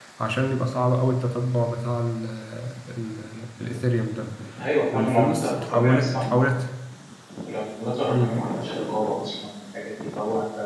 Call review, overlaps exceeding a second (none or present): present